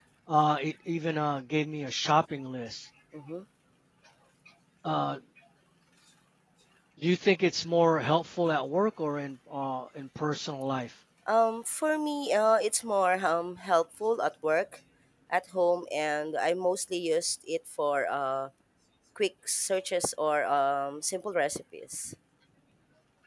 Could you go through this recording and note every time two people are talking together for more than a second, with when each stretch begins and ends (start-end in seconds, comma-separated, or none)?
none